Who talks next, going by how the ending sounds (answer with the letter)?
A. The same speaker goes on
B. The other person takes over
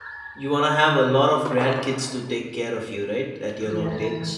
B